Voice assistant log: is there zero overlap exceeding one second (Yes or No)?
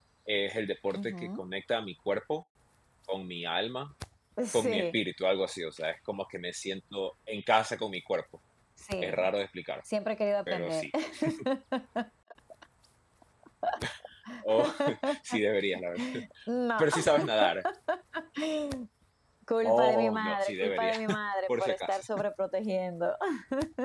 No